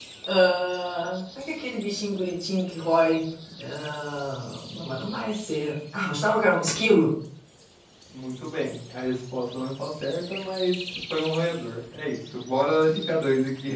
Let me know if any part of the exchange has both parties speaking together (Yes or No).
No